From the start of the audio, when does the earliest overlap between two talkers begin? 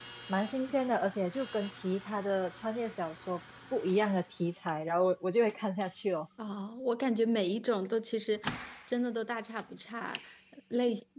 none

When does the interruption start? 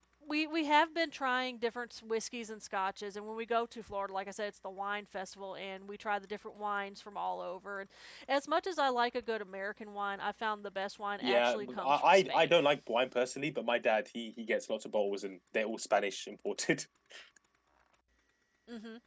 11.2 s

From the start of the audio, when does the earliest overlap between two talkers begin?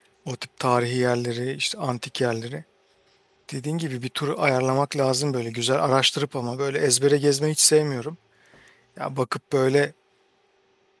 none

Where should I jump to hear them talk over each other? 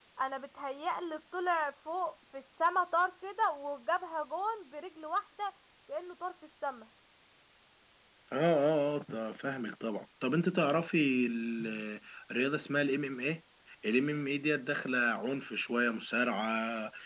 none

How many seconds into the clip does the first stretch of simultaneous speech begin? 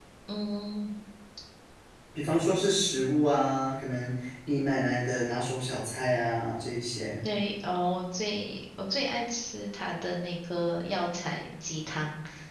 none

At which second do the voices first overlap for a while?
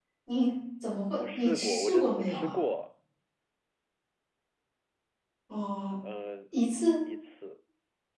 1.2 s

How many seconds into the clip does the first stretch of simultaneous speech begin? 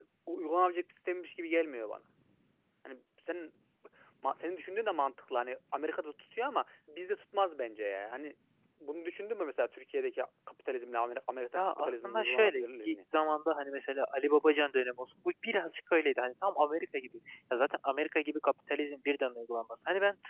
11.6 s

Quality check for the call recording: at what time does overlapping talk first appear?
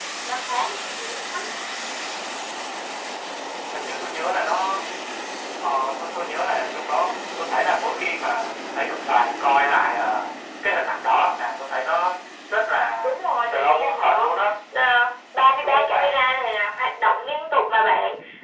13.0 s

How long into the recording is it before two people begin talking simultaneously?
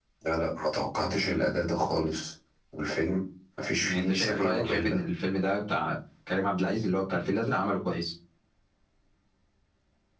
3.8 s

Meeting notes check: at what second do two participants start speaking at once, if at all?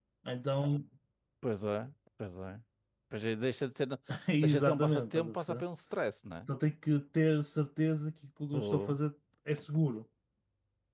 4.4 s

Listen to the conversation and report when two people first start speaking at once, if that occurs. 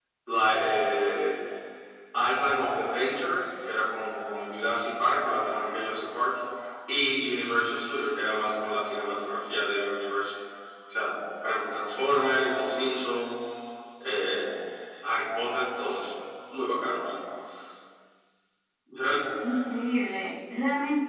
none

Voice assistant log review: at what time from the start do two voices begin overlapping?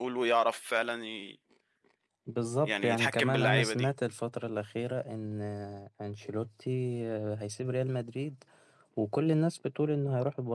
2.6 s

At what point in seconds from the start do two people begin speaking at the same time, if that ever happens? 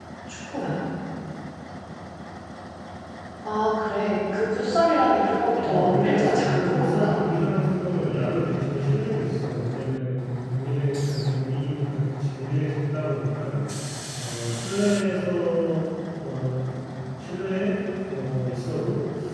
5.7 s

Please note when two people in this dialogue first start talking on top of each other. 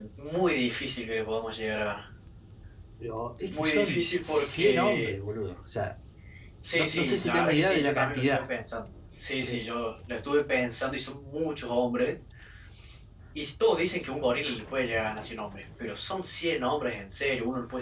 3.5 s

